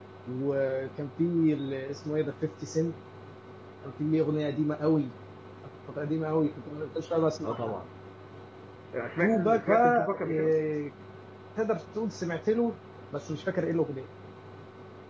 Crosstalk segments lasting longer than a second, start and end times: 9.2-10.5

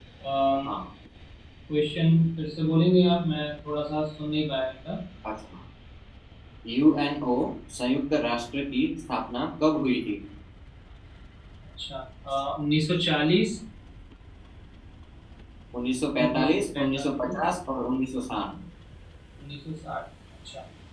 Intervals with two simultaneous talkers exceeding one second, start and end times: 16.2-17.4

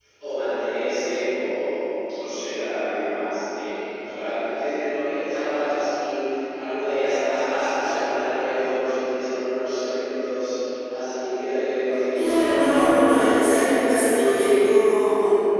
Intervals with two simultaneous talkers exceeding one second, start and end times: none

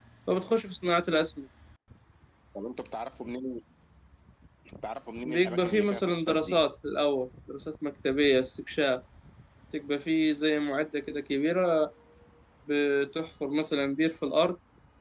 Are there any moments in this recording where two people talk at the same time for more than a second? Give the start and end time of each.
5.2-6.6

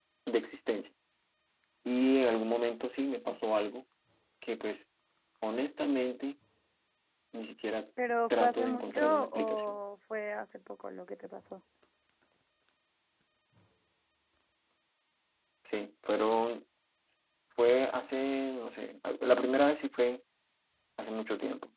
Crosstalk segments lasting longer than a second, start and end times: 8.3-9.8

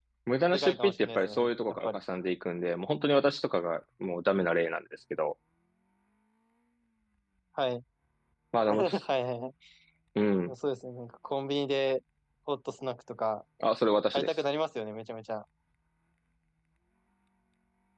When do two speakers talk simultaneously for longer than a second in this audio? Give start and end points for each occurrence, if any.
0.5-2.0

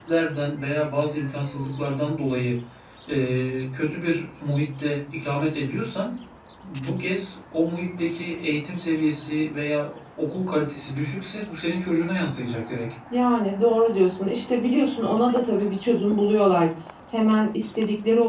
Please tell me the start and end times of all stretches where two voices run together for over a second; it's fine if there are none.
none

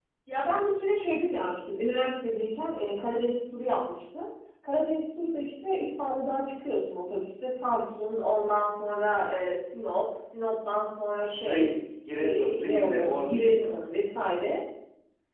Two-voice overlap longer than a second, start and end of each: 12.1-13.8

